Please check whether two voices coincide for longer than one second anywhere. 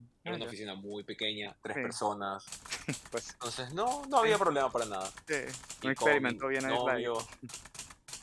Yes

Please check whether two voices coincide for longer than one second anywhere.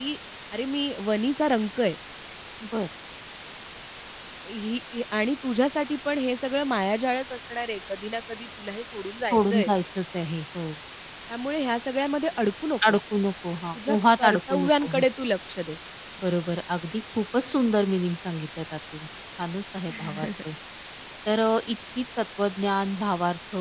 Yes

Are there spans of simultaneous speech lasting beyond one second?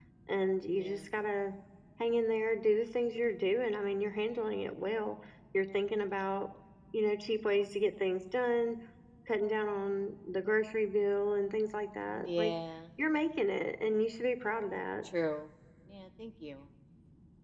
No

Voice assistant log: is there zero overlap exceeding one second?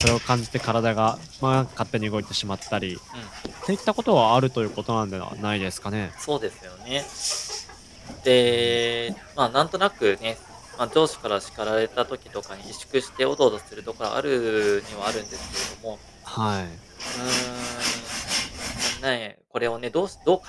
Yes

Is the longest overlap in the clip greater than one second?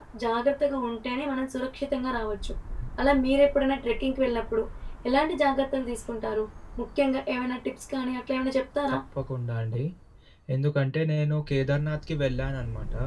No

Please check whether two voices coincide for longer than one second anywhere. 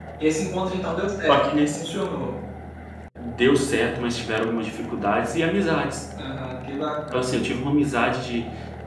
No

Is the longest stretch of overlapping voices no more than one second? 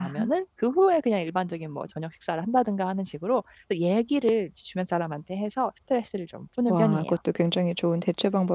Yes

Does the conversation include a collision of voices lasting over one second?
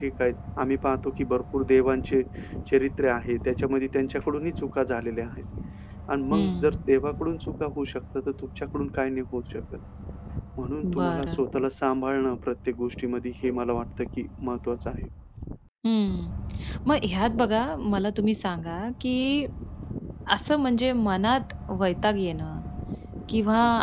No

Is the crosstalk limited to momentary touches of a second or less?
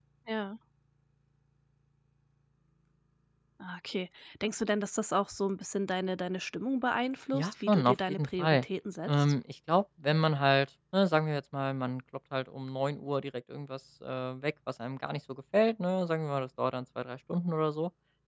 No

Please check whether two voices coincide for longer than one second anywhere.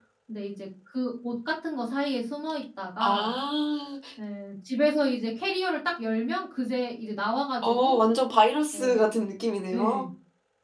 No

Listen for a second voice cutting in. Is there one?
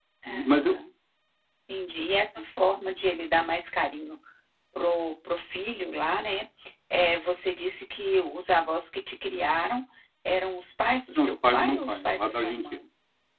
Yes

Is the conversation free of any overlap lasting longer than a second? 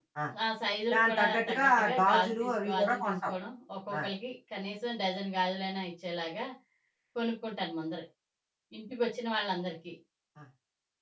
No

